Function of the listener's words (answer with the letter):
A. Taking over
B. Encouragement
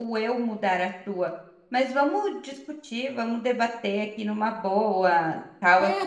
A